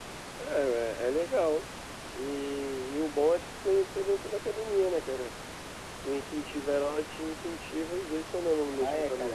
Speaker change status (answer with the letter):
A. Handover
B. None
A